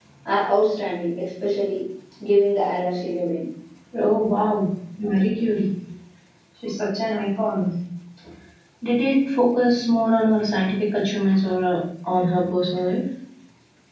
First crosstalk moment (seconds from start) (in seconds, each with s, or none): none